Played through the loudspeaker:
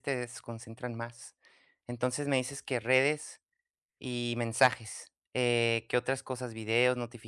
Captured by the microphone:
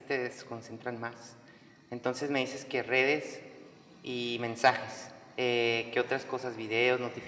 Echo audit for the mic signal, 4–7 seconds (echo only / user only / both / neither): echo only